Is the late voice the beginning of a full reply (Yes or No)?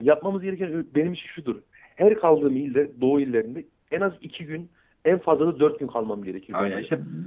Yes